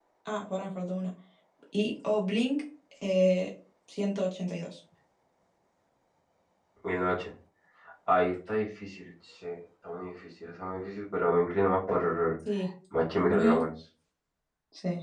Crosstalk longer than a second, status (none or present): none